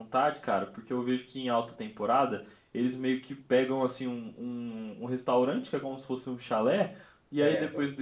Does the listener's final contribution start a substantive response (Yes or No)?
No